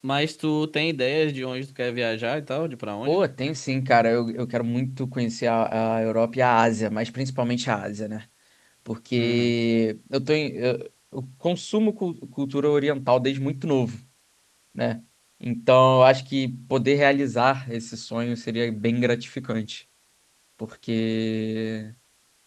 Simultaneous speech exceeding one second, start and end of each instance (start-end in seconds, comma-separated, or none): none